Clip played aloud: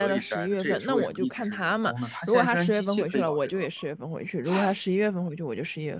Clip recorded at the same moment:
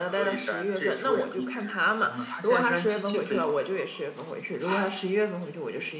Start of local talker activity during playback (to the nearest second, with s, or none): none